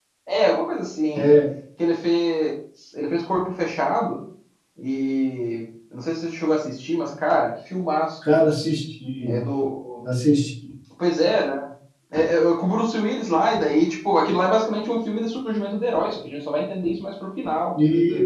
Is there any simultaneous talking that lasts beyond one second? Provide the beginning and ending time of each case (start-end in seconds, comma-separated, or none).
none